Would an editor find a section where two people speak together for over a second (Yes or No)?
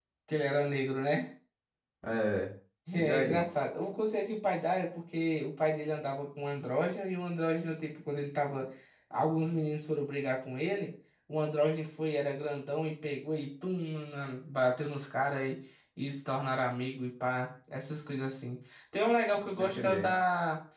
No